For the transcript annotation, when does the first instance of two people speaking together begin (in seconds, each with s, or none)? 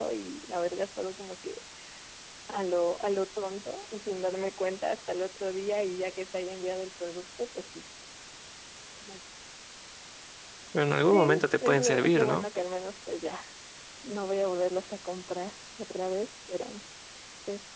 11.1 s